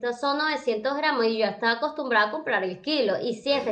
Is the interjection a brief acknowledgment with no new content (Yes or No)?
Yes